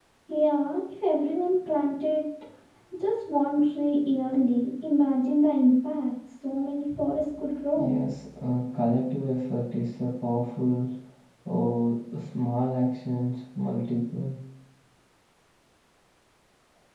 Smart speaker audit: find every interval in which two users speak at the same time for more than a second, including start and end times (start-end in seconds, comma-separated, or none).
none